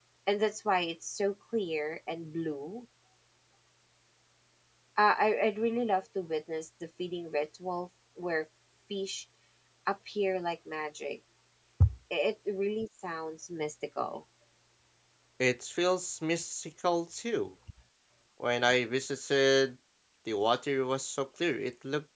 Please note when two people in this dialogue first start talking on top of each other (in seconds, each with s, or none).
none